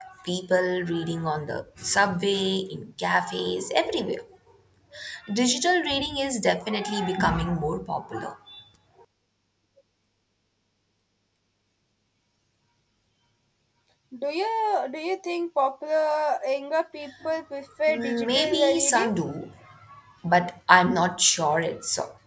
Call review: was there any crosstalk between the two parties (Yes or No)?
Yes